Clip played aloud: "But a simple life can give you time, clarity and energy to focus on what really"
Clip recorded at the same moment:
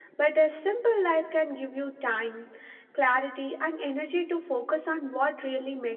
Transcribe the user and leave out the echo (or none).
none